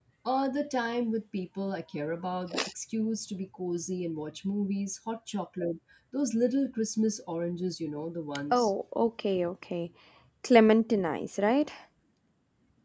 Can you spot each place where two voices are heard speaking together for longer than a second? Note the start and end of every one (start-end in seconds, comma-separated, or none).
none